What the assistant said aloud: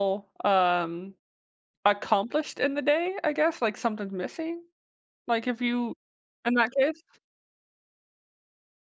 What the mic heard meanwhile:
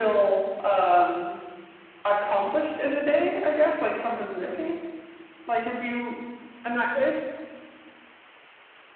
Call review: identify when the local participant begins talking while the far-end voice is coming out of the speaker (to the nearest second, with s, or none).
none